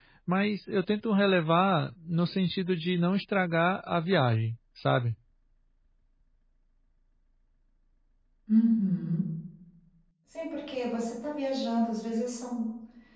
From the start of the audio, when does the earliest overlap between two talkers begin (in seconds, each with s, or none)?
none